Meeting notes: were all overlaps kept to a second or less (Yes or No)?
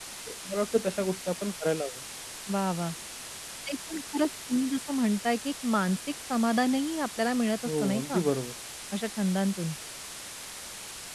Yes